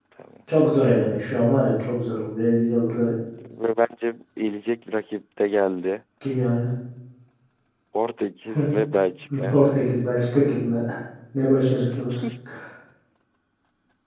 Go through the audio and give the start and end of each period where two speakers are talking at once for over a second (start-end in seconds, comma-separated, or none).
none